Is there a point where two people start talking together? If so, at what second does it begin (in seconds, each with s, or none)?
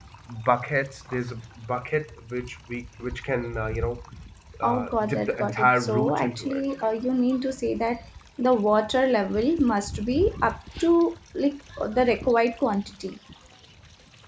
4.6 s